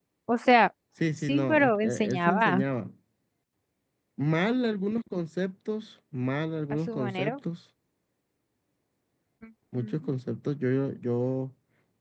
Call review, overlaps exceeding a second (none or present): present